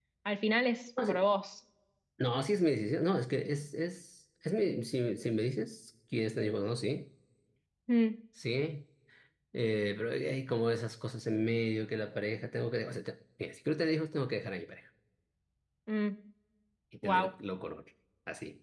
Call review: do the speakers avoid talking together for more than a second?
Yes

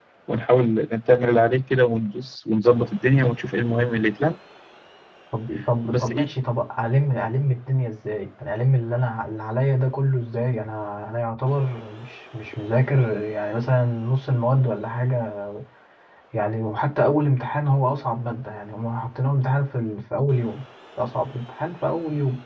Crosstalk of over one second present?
No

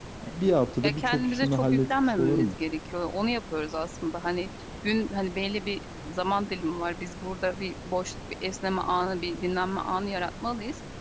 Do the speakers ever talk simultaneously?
Yes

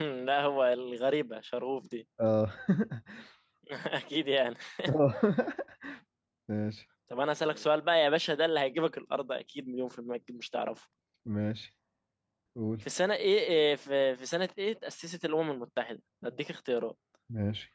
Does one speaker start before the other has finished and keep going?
No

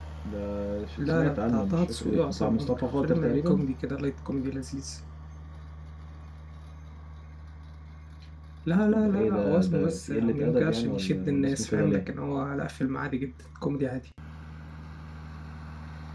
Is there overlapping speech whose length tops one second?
Yes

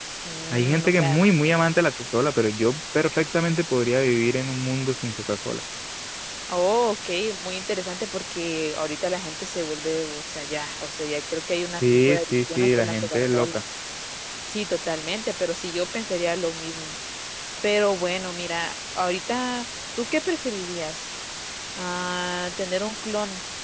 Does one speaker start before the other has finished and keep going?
Yes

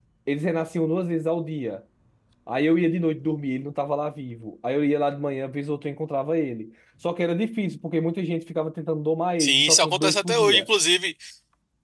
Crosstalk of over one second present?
Yes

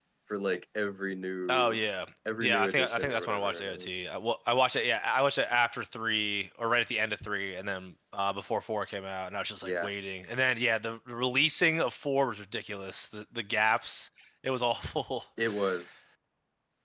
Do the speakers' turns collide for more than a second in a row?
Yes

